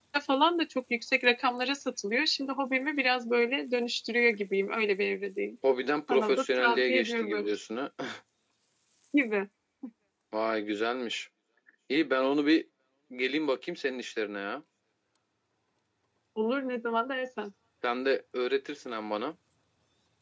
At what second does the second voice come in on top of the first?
6.1 s

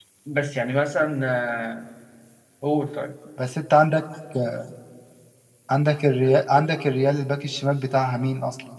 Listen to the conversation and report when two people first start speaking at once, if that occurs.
none

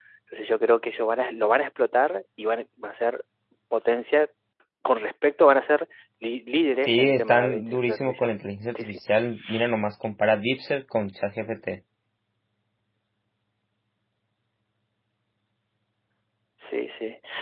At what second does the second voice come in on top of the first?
6.9 s

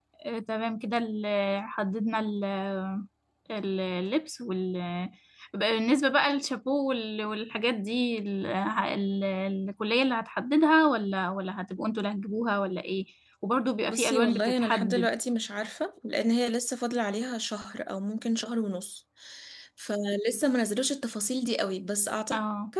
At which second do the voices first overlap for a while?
13.9 s

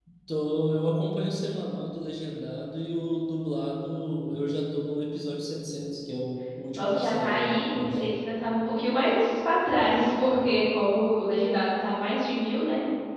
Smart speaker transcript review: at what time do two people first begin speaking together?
6.7 s

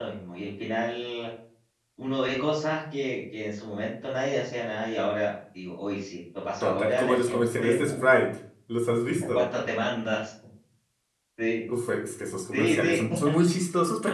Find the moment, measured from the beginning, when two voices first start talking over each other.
6.6 s

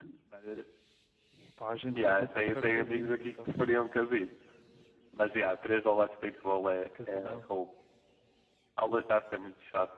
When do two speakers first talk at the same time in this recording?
1.9 s

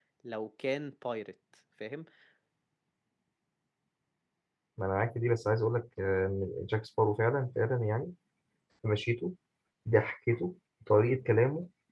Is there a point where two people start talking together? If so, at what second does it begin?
none

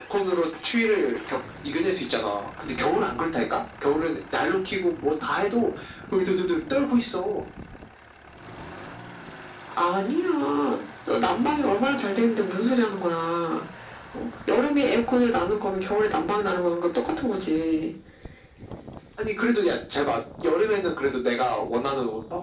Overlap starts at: none

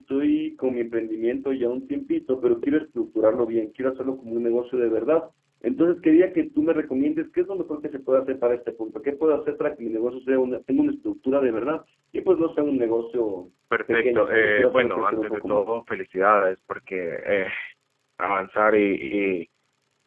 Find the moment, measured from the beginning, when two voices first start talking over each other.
13.9 s

